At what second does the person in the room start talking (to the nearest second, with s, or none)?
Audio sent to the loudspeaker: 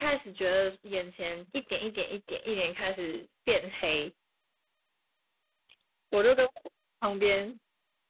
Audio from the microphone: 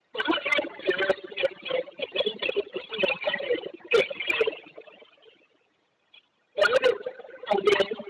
none